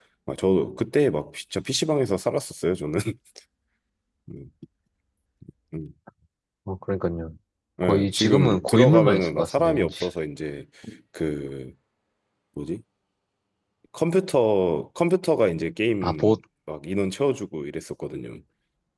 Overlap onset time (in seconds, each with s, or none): 7.8 s